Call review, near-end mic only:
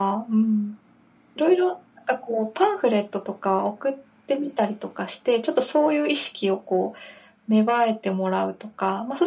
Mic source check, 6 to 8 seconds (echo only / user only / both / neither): echo only